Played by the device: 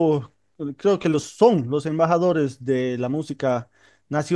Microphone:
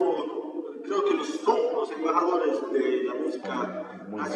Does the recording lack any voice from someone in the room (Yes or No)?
No